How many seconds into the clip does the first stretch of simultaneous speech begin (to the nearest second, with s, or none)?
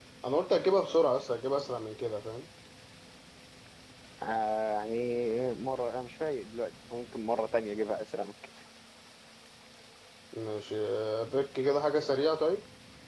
none